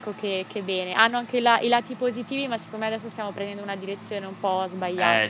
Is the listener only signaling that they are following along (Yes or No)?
No